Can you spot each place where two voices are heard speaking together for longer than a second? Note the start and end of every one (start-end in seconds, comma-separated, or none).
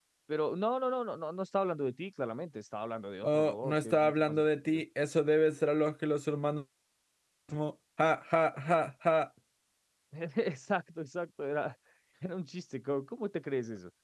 3.2-4.8